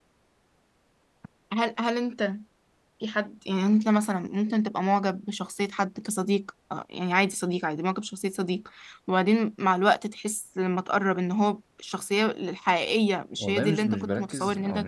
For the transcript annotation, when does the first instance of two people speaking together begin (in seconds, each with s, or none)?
13.4 s